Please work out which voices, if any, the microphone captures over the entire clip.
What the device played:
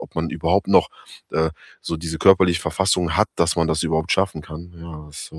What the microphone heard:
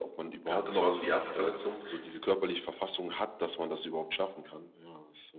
both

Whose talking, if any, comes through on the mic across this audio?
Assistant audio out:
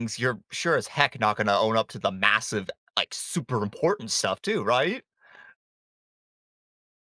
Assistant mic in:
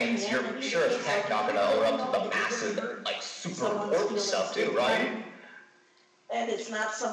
both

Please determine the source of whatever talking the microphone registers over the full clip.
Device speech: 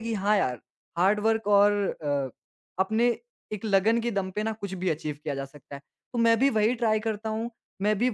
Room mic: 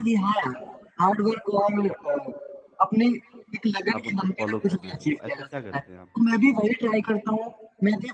both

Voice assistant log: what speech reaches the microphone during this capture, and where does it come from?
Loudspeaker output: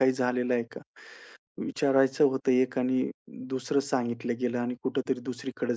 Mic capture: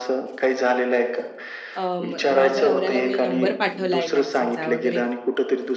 both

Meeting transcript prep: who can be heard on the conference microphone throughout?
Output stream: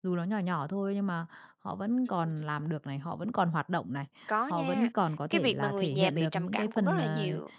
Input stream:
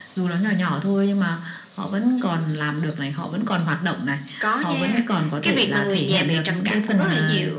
echo only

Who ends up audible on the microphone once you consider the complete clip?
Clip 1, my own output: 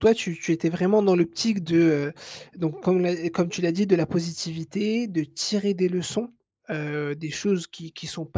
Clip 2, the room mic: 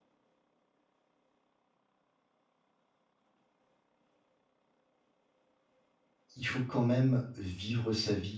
user only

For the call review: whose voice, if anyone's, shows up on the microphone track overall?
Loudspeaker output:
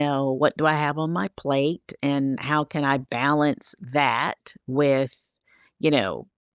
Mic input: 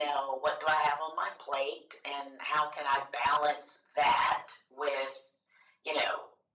echo only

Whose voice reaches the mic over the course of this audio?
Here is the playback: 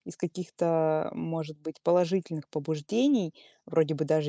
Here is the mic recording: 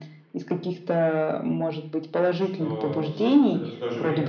both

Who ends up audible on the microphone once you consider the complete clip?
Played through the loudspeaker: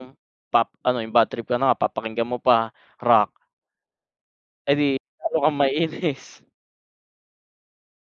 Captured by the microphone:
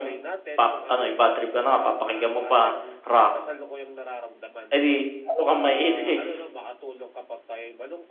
both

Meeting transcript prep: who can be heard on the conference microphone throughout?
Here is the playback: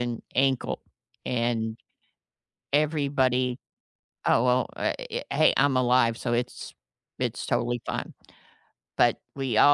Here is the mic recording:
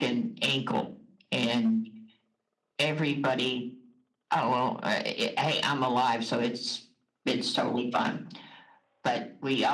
echo only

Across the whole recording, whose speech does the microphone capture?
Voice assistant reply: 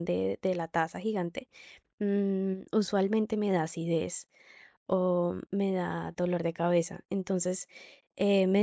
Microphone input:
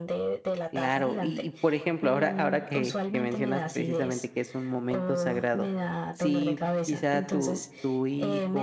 both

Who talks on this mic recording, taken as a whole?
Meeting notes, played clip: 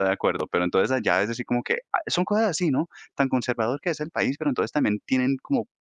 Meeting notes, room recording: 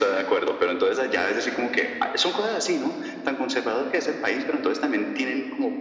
echo only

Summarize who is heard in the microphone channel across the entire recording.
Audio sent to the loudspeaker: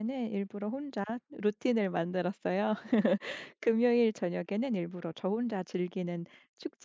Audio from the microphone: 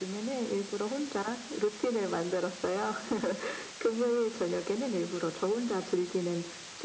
echo only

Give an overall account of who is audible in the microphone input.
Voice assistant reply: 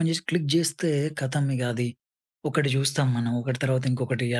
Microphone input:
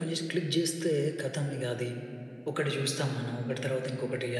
echo only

